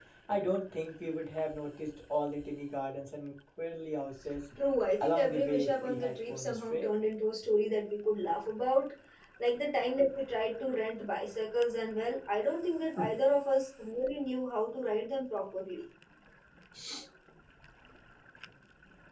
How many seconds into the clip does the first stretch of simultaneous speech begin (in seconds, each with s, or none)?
5.0 s